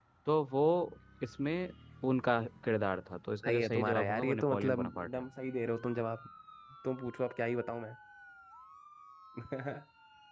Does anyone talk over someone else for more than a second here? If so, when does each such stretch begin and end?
3.4-5.2

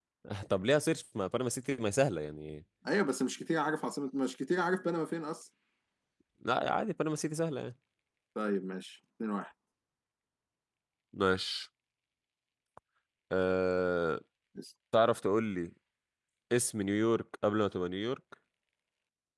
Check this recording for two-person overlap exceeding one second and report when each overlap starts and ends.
none

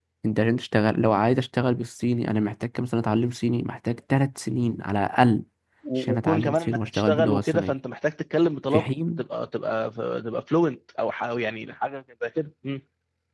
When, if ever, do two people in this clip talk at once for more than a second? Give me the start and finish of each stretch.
6.0-7.7

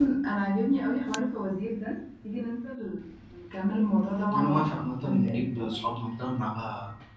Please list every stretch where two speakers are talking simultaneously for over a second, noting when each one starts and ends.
4.3-5.8

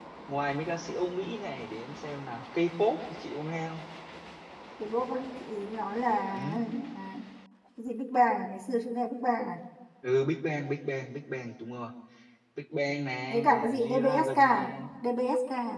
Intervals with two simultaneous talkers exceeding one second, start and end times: 13.3-14.9

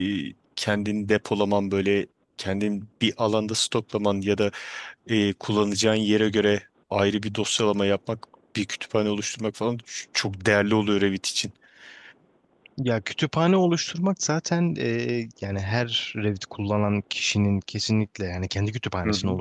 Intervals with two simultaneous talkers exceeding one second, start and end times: none

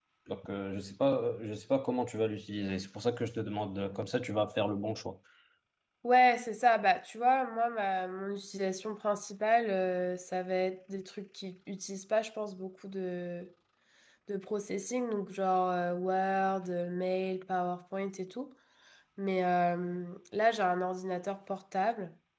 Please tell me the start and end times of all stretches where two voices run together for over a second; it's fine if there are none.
none

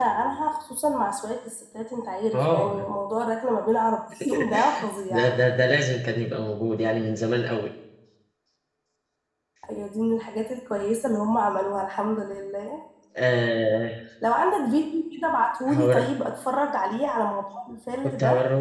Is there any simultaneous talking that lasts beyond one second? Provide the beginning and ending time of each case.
none

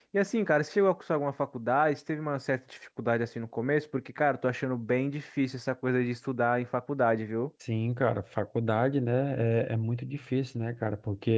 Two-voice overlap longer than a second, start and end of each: none

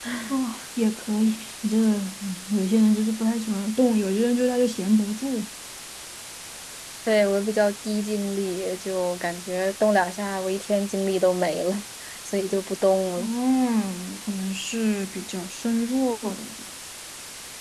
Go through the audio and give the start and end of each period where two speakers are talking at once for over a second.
none

